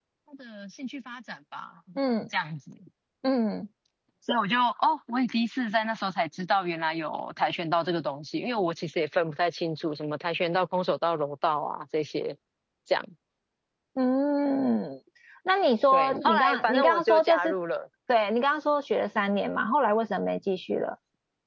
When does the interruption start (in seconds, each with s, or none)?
15.9 s